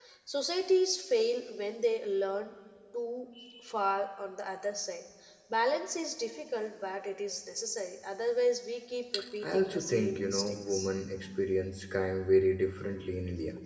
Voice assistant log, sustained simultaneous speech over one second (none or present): present